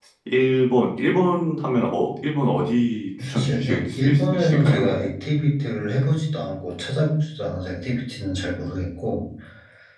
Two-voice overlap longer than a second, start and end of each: 3.3-5.1

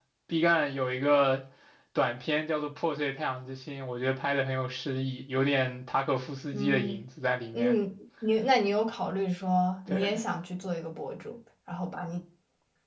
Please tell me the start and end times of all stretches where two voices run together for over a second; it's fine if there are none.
none

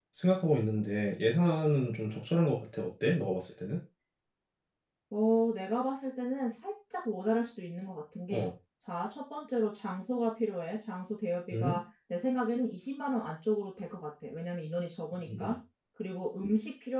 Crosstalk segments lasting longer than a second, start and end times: none

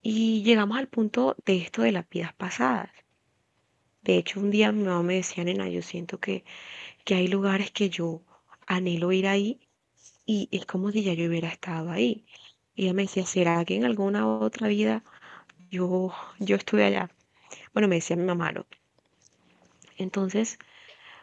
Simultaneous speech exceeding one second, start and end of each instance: none

